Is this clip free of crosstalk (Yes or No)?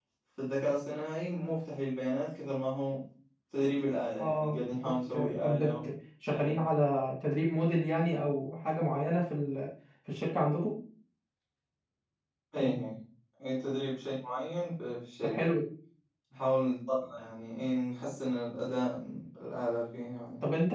No